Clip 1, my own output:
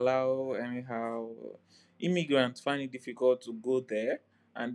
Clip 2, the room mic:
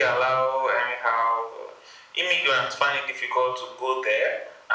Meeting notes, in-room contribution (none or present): none